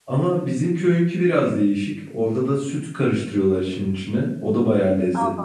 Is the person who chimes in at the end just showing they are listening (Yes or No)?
No